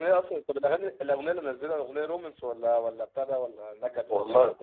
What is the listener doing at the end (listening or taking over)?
taking over